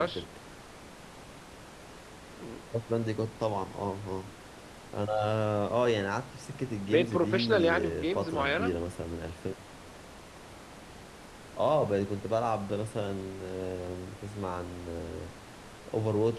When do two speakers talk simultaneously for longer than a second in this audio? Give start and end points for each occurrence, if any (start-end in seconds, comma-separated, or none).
6.9-8.7